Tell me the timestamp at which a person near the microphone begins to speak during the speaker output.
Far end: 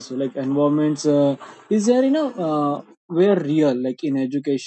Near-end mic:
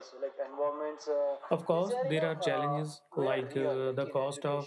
1.5 s

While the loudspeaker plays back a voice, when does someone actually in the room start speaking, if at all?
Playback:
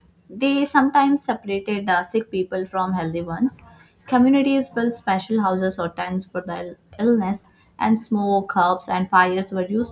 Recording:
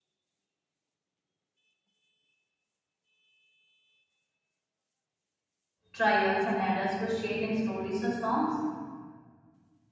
5.9 s

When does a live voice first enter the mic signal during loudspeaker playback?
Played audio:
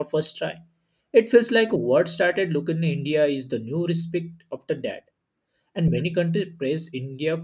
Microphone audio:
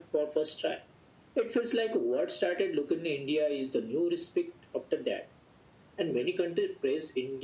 none

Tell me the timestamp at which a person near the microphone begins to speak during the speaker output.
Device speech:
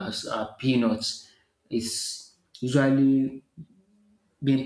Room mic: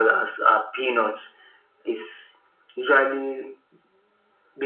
none

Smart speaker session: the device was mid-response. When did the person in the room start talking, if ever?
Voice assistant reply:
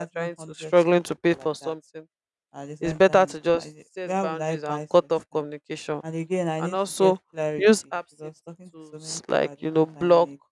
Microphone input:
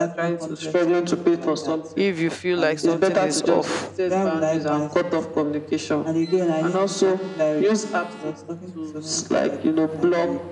2.0 s

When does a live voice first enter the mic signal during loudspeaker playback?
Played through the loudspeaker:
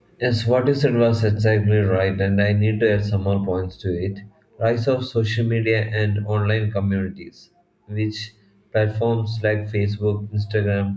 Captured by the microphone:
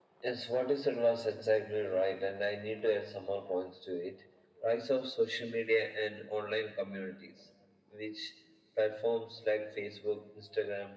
none

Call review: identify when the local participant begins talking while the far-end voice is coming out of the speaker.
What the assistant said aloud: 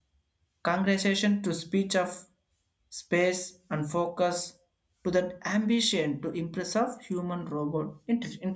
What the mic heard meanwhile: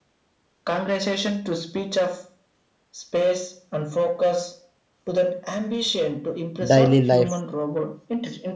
6.6 s

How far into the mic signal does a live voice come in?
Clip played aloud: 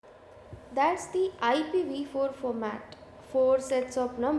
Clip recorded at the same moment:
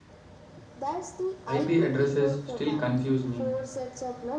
1.4 s

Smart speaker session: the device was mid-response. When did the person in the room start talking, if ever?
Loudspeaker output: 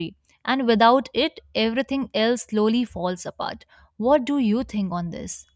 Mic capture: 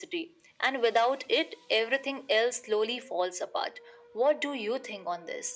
none

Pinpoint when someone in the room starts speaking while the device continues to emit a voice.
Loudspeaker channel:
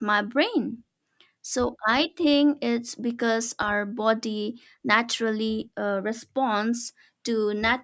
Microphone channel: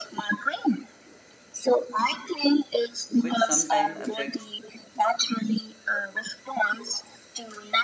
3.2 s

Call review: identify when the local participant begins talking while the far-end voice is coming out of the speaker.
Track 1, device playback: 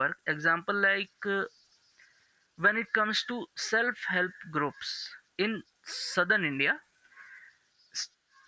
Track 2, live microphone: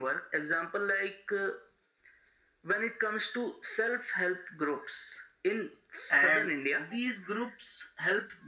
6.1 s

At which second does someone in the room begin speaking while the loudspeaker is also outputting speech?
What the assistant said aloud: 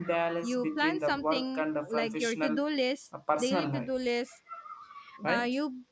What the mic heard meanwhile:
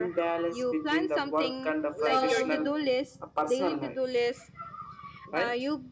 2.0 s

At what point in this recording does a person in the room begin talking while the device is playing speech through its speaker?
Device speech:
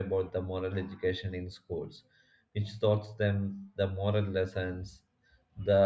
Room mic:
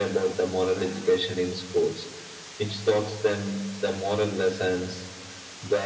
none

